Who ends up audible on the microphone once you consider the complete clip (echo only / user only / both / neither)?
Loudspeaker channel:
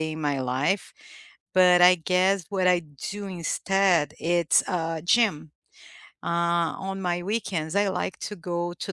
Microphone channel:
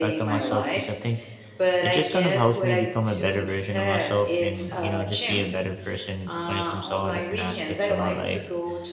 both